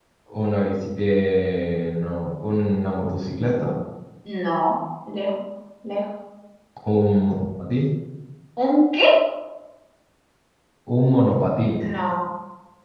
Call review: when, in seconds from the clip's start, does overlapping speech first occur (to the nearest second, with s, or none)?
none